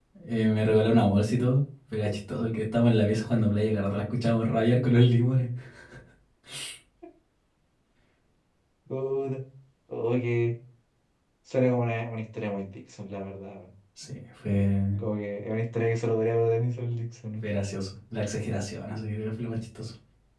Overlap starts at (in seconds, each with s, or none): none